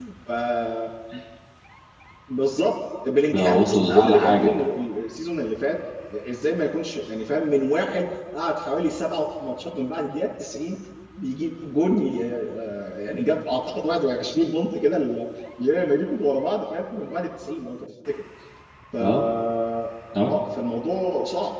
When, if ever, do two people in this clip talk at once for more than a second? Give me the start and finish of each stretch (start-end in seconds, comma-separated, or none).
3.3-4.5